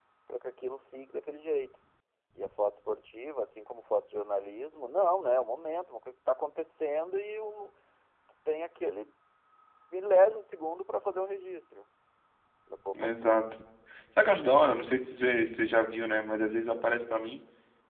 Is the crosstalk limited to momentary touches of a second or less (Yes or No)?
Yes